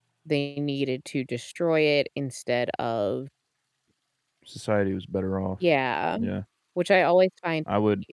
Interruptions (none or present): none